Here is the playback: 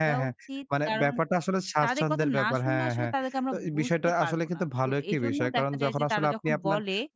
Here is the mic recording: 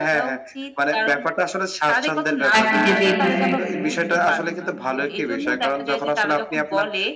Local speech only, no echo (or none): তাকে যেতেই পারে একদম।